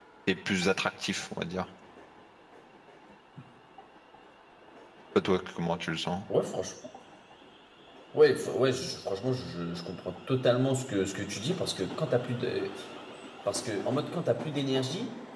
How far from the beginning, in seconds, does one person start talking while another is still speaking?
none

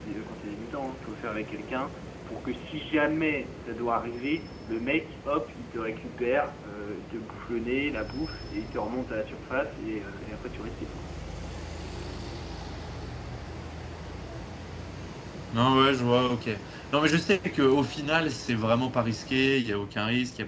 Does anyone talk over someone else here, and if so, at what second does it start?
none

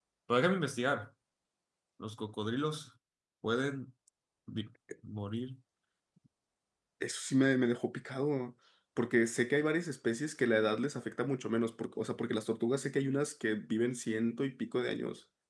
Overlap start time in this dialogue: none

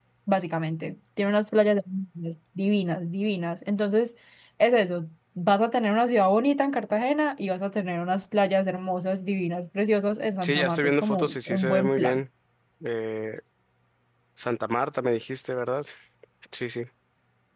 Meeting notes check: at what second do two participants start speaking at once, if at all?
10.4 s

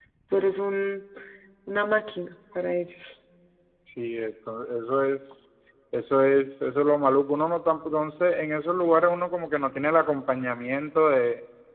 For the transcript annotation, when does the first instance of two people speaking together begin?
none

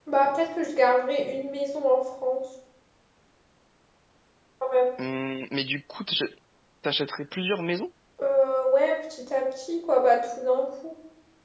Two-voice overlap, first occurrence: none

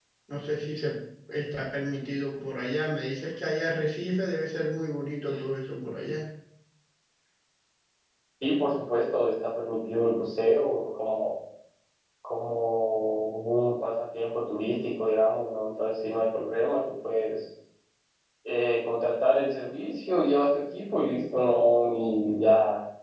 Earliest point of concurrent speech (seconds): none

